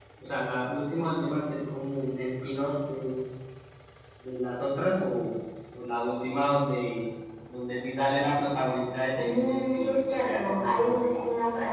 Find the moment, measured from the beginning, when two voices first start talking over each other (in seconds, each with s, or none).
9.2 s